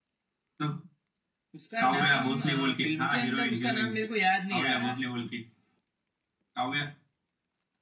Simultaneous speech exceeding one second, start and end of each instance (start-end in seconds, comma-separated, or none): 1.8-4.0